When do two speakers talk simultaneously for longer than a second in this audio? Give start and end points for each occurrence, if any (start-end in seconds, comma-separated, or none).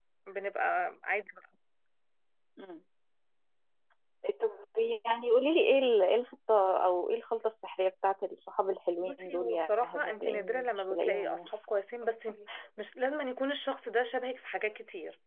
9.0-11.4